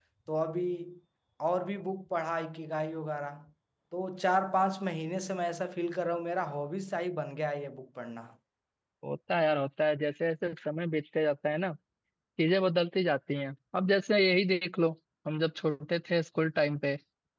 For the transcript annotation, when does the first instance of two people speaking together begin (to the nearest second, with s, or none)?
none